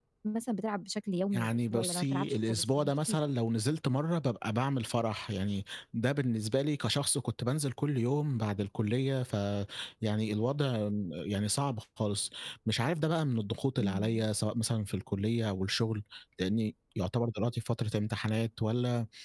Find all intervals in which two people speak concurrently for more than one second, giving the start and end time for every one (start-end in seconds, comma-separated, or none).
1.3-3.2